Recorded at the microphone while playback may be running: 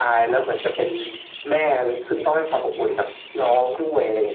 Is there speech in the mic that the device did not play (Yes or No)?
No